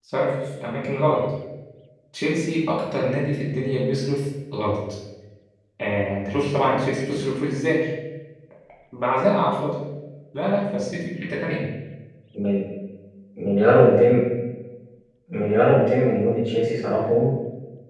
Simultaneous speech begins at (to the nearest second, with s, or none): none